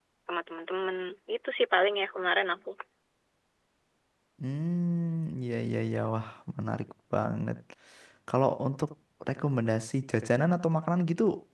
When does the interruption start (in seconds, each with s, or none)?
none